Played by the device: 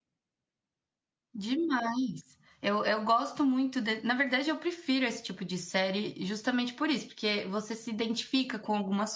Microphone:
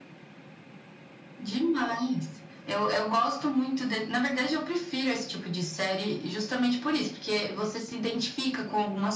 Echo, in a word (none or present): present